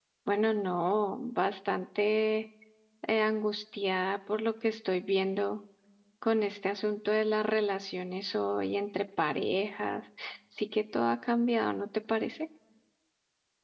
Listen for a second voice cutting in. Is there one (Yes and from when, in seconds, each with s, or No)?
No